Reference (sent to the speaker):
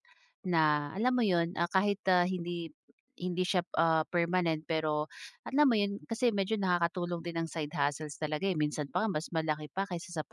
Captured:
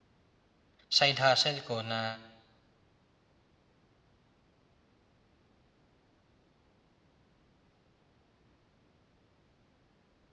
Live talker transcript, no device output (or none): side hustle ko na